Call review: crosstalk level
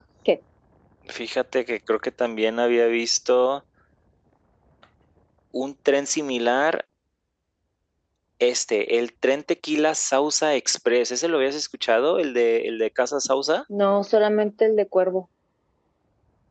none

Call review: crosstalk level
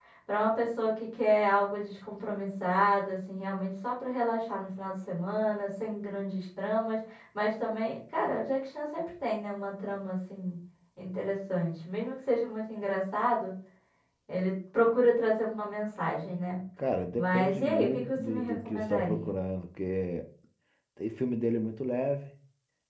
present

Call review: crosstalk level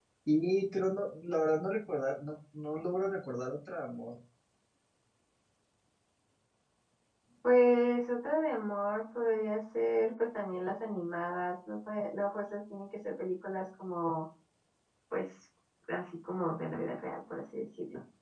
none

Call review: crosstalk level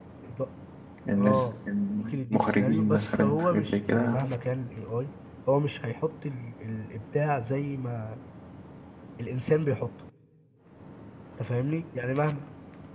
present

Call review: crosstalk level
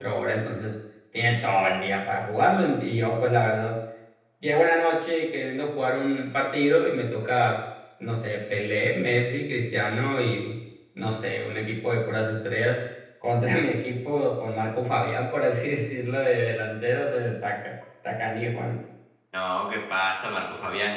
none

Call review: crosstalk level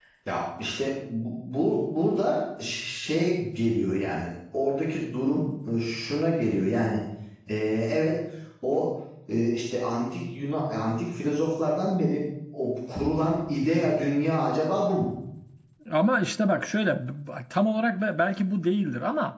none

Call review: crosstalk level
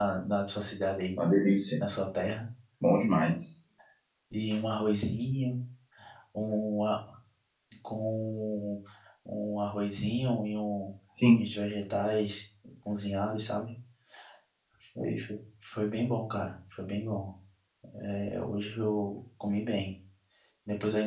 none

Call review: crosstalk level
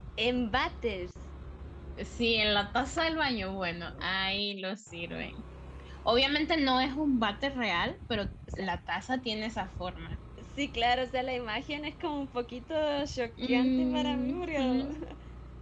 present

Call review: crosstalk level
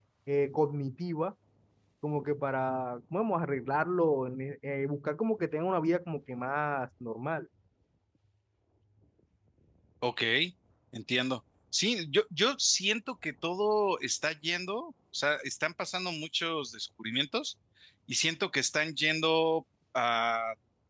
none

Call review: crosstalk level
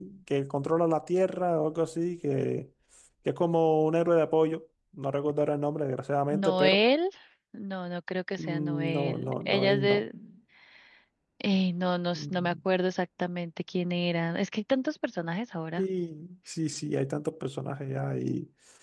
present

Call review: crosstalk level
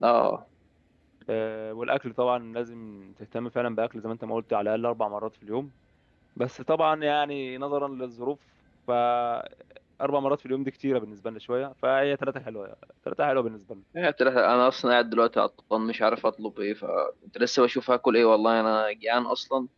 none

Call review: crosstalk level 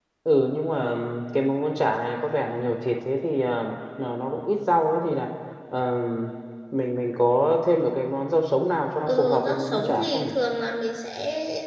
present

